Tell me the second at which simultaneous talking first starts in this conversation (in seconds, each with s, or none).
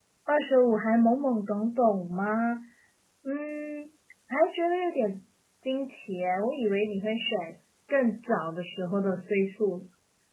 none